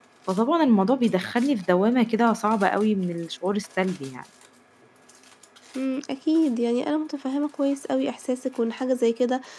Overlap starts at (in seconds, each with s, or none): none